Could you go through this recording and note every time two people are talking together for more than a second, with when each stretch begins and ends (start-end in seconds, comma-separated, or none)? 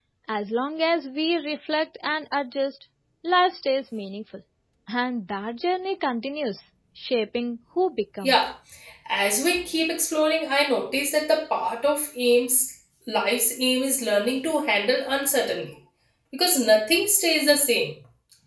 none